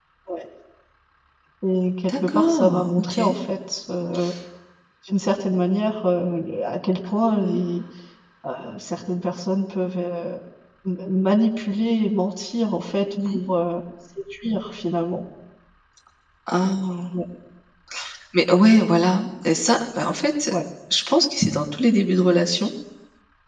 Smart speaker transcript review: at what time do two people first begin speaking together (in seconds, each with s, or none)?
2.1 s